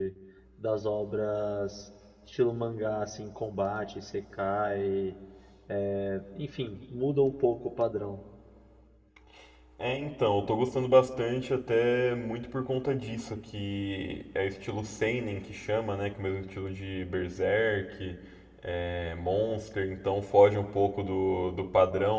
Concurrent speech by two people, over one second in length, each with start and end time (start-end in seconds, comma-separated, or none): none